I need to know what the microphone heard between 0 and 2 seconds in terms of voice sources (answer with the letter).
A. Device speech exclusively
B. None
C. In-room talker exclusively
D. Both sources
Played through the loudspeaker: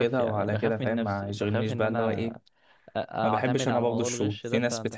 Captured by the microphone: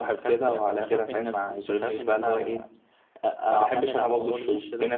A